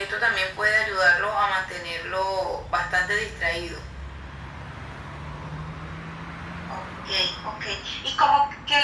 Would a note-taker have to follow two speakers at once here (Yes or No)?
No